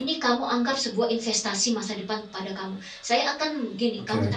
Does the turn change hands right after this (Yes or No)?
No